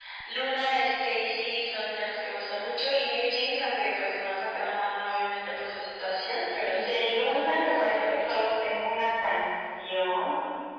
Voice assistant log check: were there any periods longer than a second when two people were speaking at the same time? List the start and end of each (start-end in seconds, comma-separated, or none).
6.7-8.5